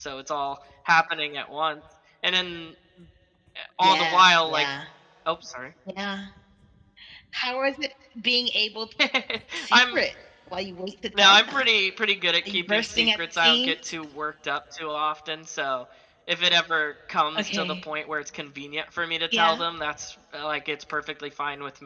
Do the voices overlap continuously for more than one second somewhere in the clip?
Yes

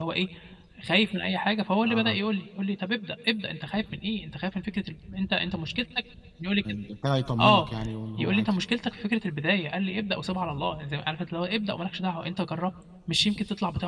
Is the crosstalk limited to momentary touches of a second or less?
Yes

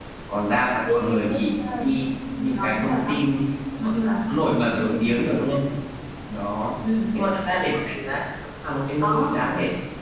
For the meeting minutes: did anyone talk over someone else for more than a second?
Yes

